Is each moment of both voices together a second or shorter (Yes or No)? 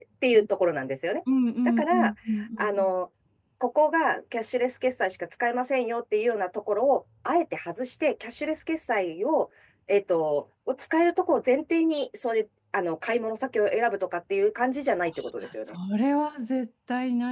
Yes